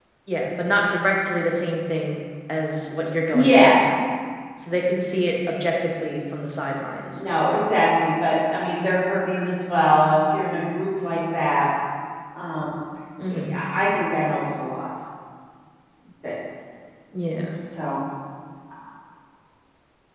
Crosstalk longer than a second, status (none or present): none